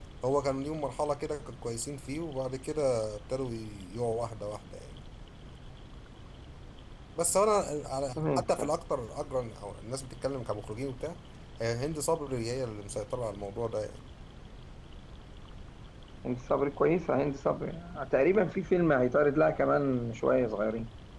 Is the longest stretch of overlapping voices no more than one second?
Yes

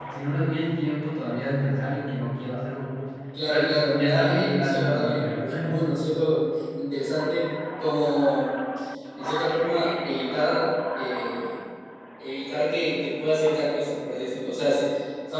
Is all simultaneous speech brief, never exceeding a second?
No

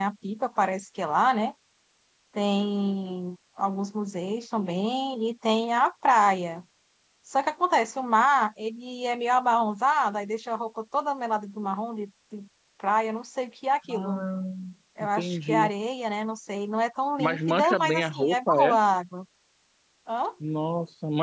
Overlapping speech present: Yes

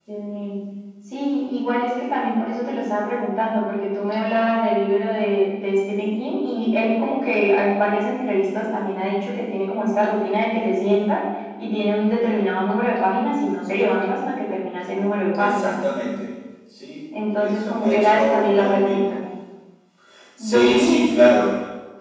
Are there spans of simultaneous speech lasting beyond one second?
Yes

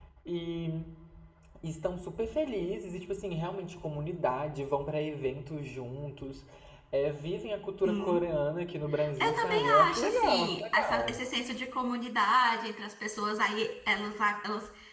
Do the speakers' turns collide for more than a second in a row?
Yes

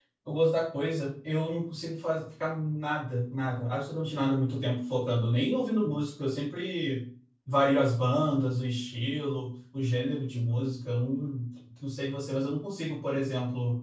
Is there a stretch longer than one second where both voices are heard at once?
No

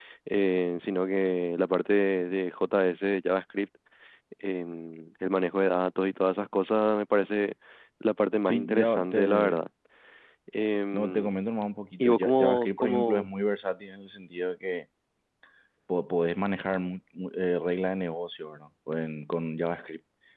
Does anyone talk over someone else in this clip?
Yes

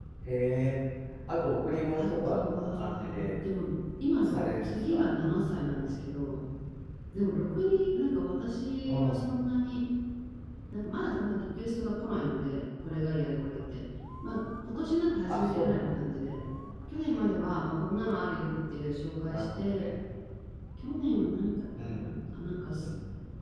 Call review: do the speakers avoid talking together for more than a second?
No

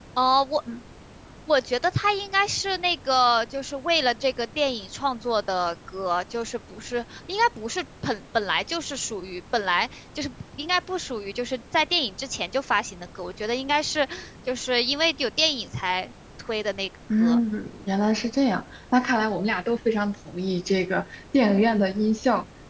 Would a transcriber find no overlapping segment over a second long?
Yes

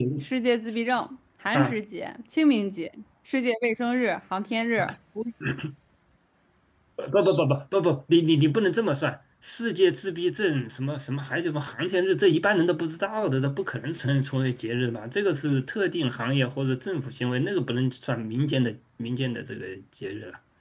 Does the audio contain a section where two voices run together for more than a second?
No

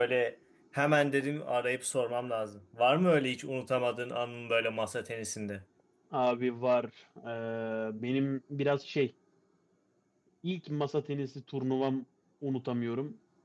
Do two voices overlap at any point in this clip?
No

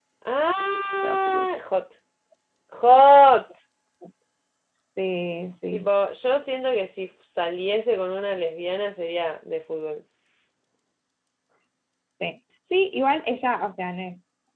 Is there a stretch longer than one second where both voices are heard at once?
No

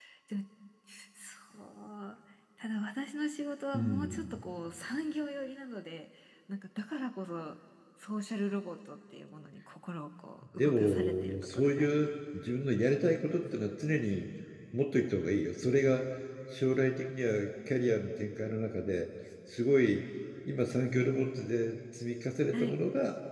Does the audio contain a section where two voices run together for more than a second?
Yes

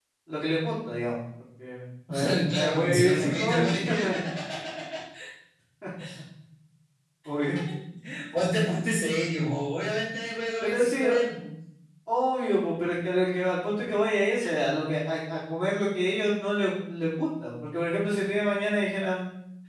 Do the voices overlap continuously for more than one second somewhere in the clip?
Yes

